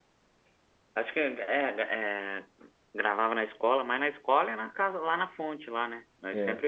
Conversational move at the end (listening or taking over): taking over